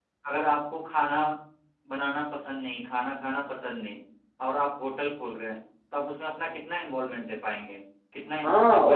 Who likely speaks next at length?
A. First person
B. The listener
B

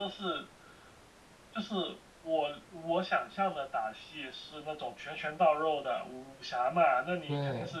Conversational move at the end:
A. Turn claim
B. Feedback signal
B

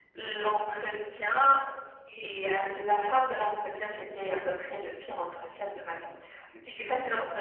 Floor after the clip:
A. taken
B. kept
B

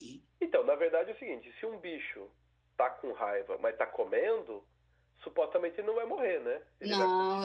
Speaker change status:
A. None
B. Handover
B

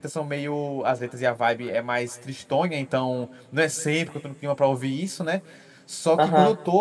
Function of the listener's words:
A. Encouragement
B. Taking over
A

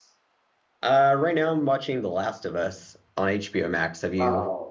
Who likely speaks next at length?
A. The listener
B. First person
A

